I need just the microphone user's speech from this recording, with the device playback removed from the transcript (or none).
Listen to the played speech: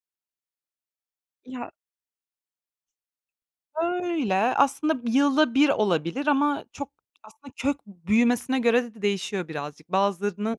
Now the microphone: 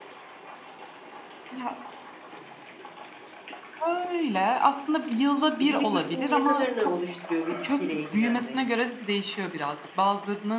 E, günlük rutinin ne kadarını oluşturuyor bir bitkiyle ilgilenmek?